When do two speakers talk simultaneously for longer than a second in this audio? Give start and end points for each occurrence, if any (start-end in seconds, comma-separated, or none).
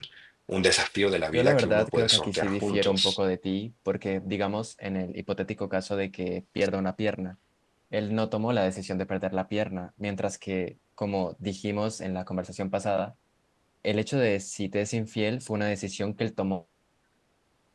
1.3-3.2